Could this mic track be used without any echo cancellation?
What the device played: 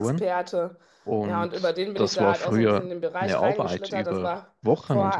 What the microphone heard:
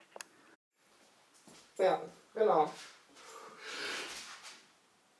Yes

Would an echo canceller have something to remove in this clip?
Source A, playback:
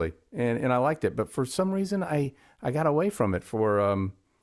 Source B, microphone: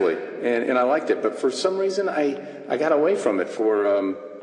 Yes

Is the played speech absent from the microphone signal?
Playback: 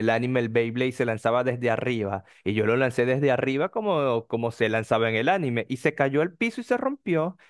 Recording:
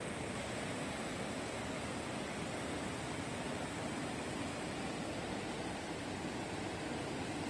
Yes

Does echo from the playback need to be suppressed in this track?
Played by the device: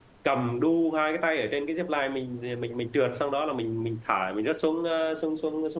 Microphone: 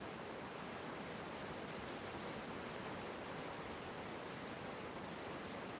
No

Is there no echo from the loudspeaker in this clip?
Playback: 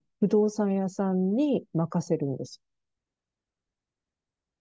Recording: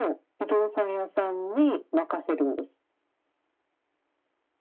No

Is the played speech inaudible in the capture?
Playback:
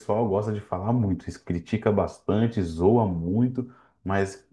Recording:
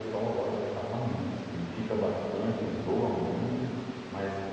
No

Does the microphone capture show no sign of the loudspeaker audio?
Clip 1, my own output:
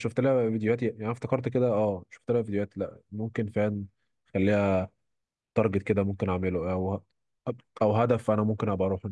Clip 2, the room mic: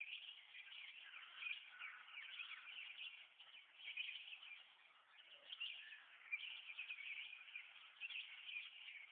Yes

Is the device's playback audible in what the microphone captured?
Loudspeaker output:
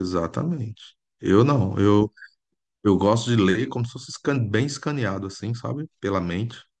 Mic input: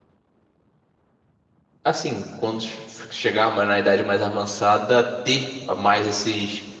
No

